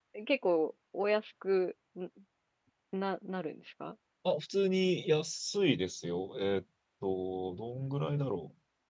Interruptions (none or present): none